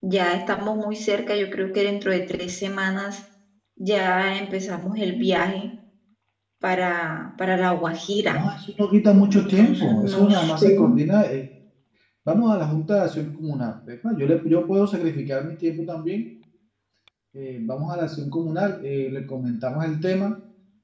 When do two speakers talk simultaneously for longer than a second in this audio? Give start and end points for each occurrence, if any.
9.3-10.7

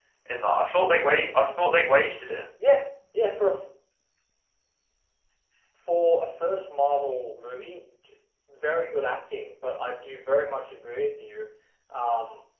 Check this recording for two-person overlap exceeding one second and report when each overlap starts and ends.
none

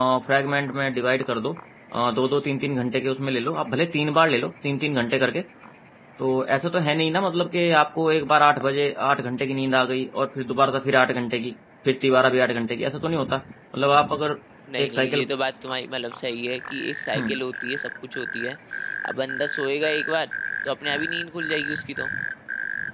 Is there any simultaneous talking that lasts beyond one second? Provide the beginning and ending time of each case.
none

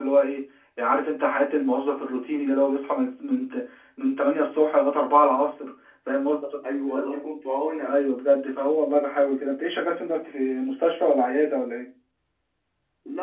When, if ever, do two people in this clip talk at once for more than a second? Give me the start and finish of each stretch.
none

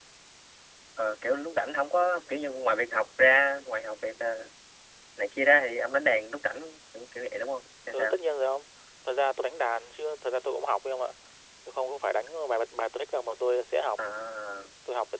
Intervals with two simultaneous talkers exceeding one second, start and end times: none

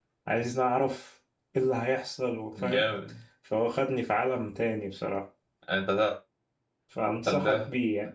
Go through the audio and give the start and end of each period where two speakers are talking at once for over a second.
none

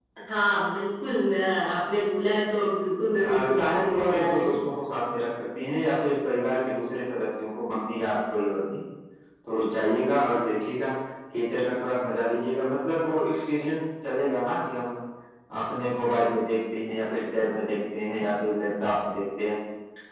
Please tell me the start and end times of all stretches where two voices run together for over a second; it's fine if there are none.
3.2-4.5

